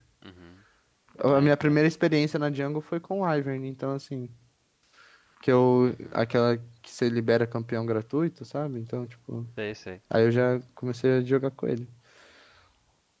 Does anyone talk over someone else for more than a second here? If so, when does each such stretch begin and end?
none

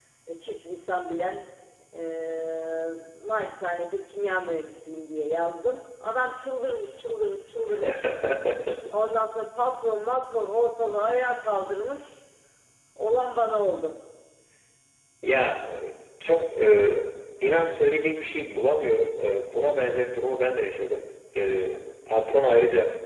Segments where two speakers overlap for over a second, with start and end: none

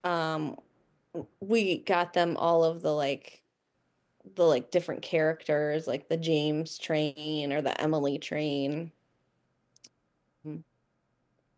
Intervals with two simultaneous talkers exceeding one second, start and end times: none

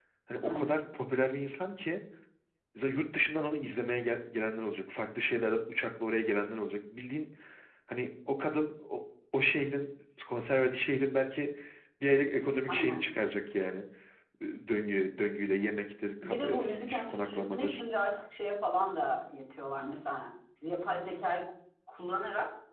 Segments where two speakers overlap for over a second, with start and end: 16.2-17.8

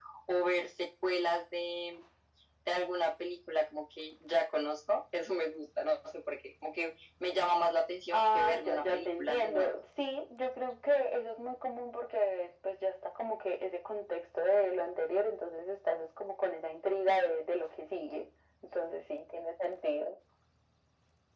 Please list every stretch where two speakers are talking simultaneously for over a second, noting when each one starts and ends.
8.1-9.7

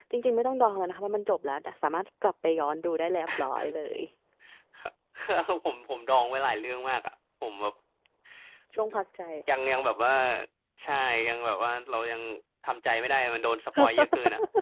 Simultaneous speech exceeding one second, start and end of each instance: none

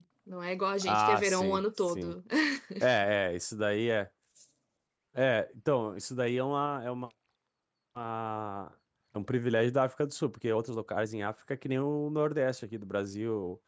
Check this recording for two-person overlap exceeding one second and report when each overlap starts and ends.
0.8-2.1

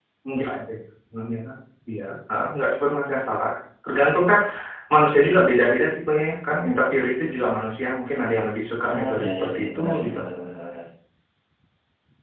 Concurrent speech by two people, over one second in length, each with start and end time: 8.8-10.2

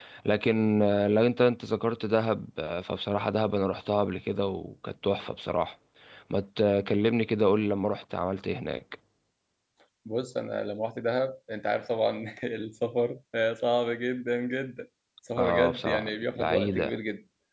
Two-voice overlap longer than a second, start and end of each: 15.4-17.0

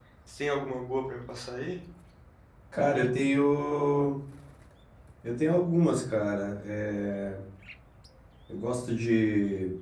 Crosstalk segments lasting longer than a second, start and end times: none

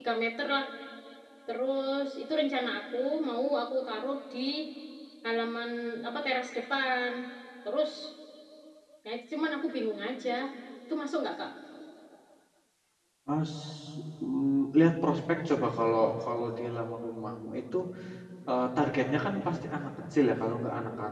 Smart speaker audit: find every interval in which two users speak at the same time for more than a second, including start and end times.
none

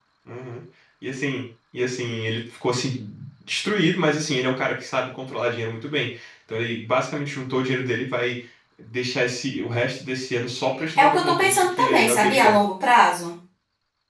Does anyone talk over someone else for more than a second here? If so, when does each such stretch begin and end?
11.0-12.5

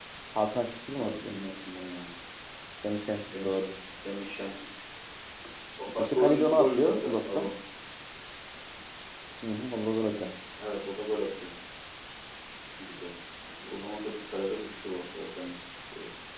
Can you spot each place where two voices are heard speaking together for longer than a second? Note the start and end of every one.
6.0-7.5

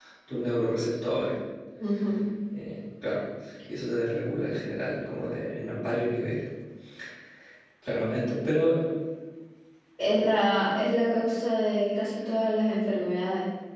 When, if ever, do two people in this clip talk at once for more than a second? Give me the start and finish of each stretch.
none

